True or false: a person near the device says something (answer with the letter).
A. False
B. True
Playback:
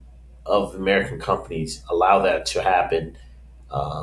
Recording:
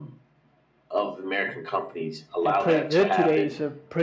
B